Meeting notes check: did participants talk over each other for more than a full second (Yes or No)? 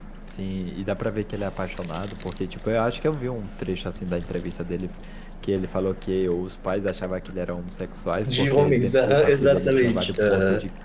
Yes